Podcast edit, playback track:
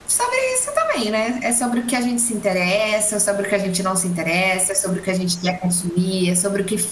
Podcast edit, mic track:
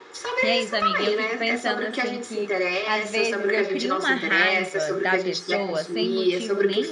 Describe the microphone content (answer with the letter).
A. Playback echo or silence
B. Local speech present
B